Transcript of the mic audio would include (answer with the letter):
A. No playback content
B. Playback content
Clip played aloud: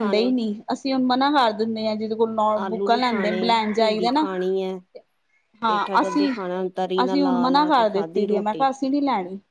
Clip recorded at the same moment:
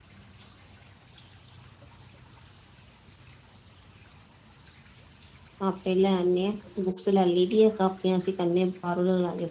A